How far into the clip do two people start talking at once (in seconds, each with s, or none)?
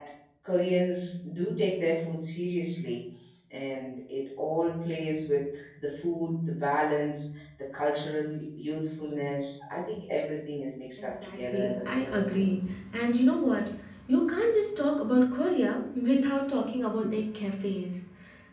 11.0 s